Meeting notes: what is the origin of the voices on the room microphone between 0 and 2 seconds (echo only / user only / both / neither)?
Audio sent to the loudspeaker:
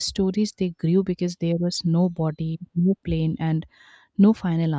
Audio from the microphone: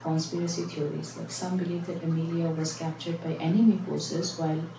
user only